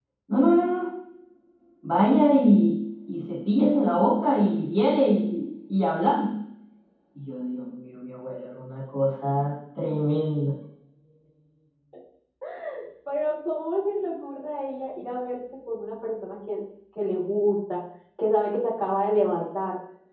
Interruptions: none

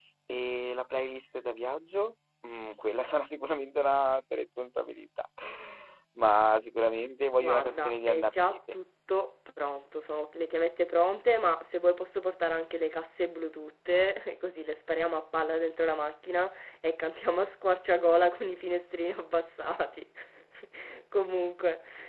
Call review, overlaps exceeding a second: present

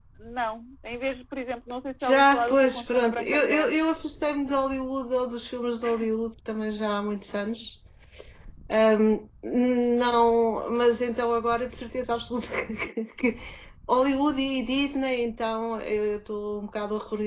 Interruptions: present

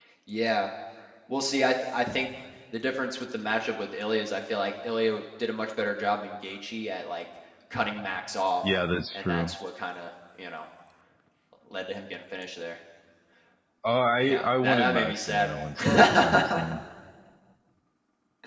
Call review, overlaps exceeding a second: present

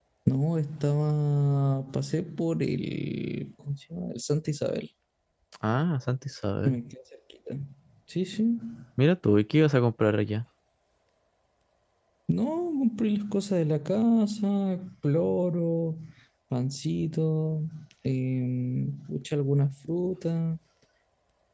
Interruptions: none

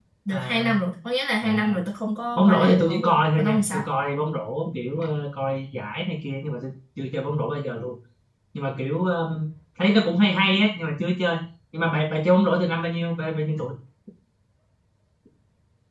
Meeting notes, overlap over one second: present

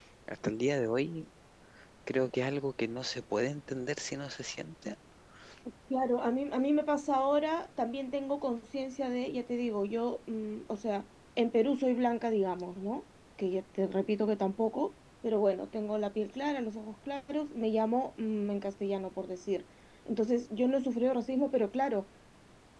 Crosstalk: none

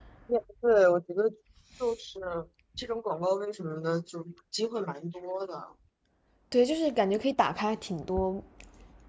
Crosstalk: none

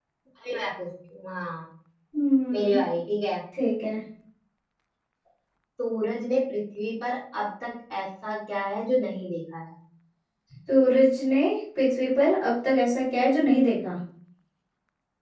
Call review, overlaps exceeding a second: none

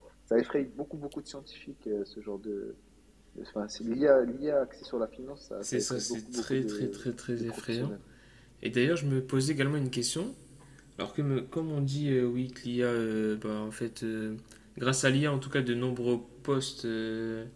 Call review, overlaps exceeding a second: present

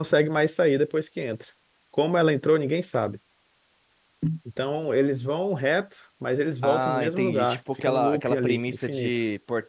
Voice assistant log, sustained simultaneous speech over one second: present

